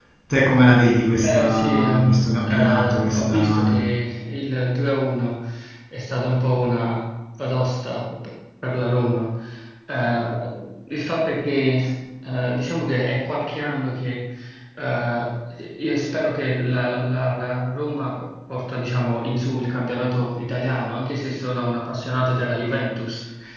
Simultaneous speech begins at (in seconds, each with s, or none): 1.2 s